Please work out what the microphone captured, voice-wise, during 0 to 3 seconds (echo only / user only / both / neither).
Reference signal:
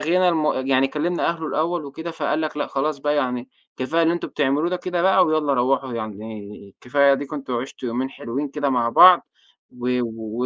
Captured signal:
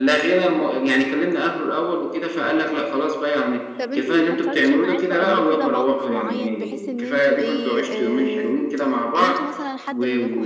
echo only